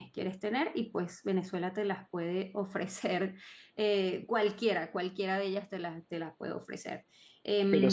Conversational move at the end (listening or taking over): taking over